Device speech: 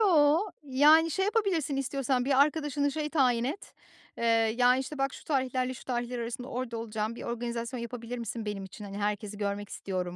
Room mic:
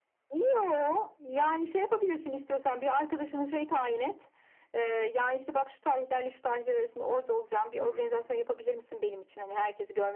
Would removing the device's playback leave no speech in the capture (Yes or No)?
No